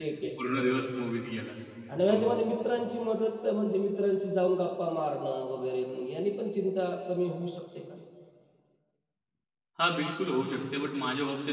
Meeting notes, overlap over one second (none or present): none